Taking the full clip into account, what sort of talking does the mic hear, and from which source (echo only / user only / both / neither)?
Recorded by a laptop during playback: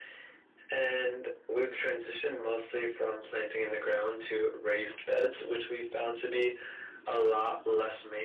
echo only